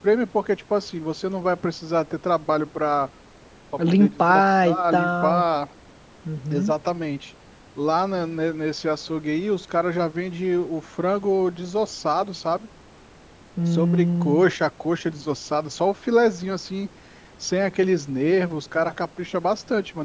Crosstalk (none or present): present